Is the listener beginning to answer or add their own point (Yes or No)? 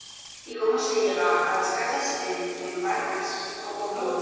Yes